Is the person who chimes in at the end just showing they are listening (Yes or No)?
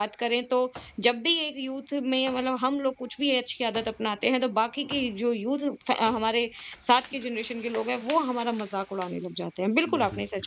Yes